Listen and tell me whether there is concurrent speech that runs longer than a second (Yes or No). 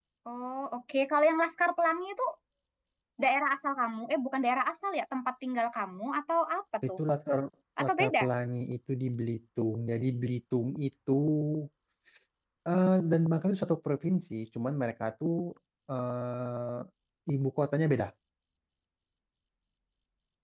No